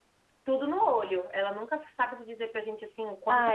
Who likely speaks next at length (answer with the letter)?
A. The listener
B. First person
A